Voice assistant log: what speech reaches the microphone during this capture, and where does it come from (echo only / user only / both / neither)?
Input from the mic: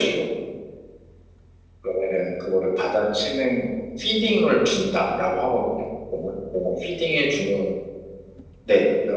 echo only